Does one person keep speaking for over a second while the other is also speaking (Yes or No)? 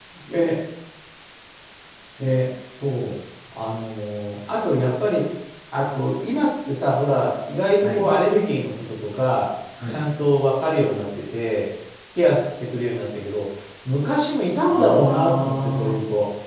Yes